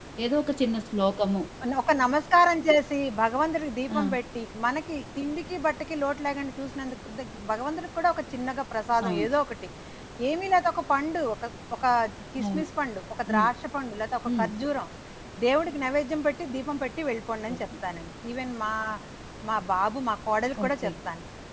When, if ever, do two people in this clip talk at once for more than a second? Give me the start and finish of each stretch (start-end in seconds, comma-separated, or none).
none